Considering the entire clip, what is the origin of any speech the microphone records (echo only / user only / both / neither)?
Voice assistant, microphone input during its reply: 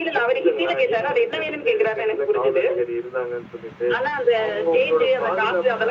echo only